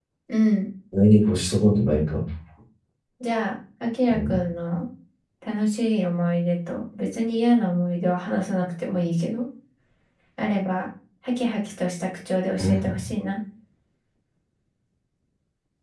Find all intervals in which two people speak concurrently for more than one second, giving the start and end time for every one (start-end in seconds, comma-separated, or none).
none